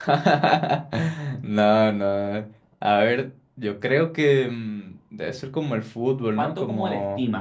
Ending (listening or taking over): taking over